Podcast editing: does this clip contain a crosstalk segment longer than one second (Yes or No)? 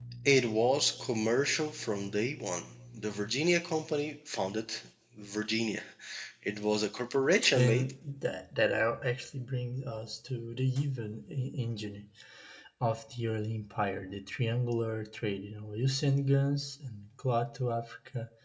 No